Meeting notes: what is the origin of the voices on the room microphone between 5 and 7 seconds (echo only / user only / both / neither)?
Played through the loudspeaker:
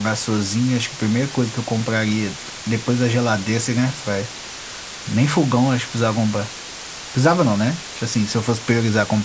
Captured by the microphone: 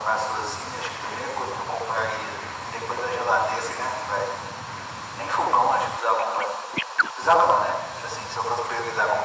echo only